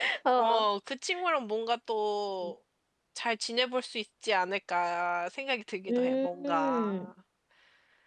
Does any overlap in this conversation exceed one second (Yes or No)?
Yes